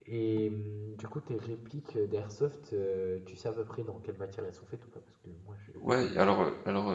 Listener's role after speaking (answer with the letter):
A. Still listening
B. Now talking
B